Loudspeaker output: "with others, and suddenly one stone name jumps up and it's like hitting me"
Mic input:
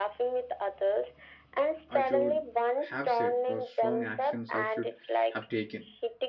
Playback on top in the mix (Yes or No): Yes